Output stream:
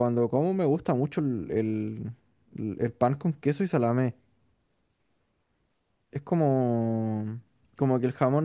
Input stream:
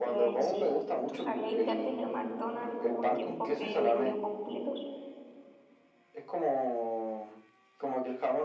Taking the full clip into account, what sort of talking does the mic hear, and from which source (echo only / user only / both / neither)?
both